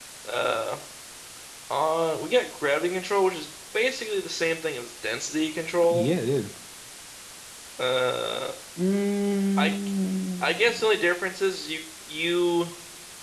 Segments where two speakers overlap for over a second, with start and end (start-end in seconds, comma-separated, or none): none